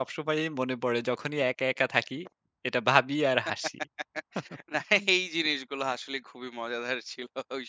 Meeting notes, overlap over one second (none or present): none